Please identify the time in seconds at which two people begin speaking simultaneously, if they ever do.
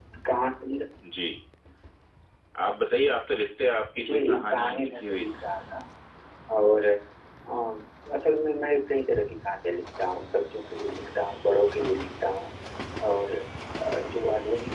4.0 s

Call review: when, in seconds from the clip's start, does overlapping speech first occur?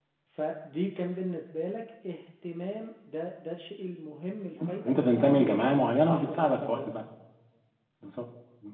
4.9 s

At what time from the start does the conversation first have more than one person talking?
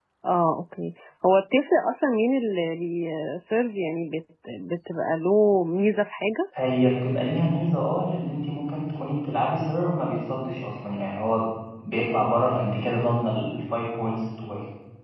none

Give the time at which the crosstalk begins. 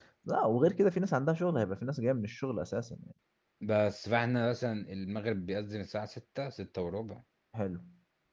none

